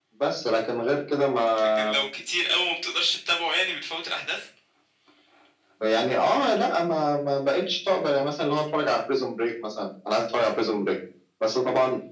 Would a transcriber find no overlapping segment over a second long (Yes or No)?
Yes